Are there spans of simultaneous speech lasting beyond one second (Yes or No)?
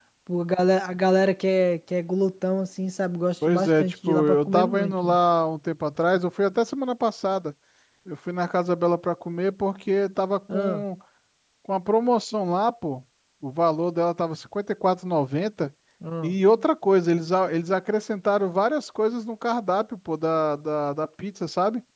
Yes